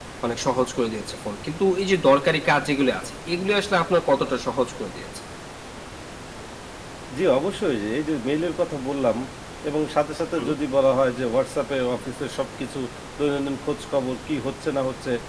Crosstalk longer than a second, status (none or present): none